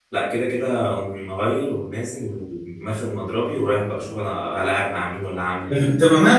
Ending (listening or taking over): taking over